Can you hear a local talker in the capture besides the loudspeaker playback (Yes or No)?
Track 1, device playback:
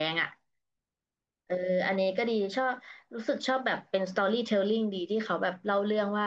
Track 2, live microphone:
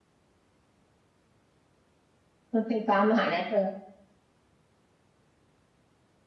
Yes